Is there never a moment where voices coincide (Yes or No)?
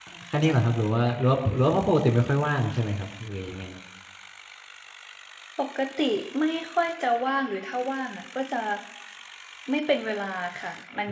Yes